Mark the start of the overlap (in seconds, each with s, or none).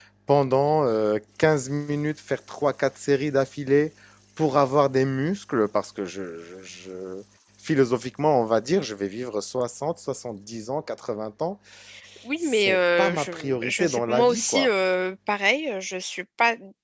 12.4 s